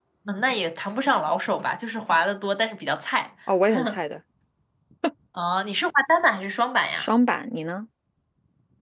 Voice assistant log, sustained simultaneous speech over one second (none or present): none